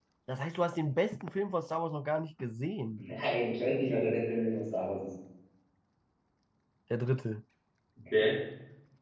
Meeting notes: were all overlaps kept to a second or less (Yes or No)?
Yes